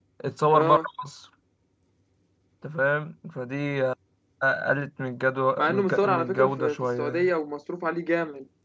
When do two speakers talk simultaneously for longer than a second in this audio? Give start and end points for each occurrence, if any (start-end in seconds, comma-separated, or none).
5.6-7.3